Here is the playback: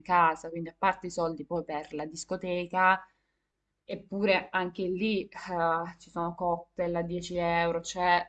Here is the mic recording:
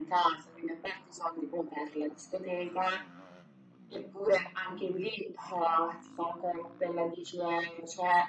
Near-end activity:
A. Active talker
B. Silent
B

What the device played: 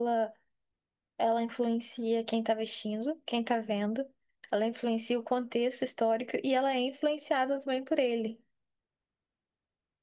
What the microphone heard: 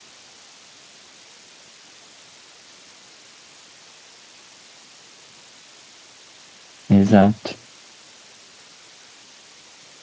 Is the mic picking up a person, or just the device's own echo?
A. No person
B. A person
B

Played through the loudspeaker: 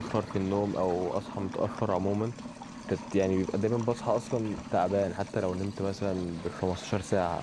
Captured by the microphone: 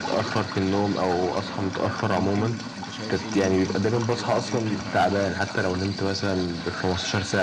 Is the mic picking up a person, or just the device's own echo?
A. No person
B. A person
B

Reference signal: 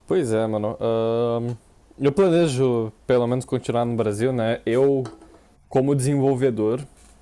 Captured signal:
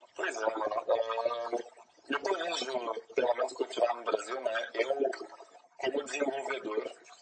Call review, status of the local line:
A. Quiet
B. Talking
A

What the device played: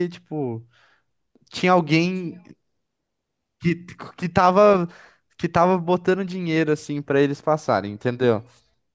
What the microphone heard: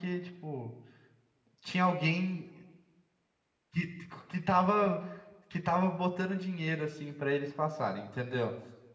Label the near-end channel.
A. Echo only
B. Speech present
A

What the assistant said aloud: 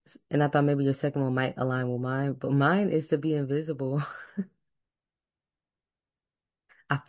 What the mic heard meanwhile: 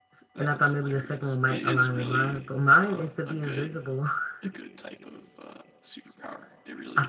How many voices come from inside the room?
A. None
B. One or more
B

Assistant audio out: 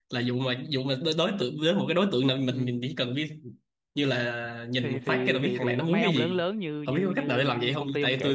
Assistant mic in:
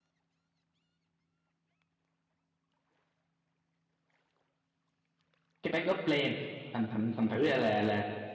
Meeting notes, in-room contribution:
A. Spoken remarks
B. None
A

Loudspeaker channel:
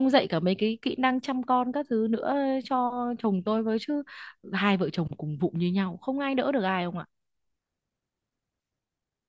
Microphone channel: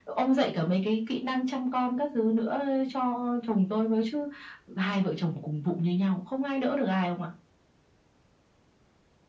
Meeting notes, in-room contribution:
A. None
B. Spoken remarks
A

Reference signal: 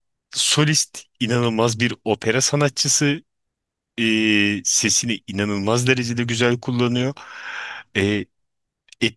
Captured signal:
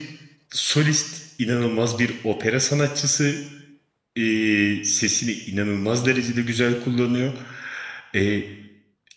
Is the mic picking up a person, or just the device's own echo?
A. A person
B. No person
B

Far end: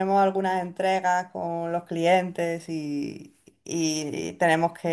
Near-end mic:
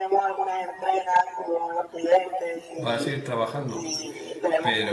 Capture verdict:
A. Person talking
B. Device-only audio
A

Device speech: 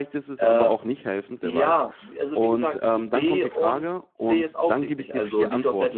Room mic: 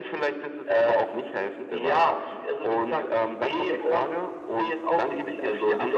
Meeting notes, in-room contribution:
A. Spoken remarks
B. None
B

